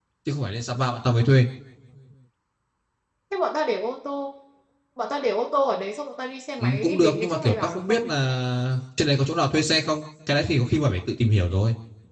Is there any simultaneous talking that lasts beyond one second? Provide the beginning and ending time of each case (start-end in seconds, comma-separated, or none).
6.6-8.1